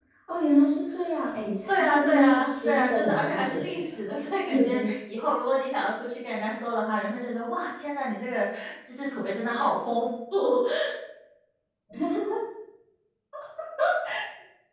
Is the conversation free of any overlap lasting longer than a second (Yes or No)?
No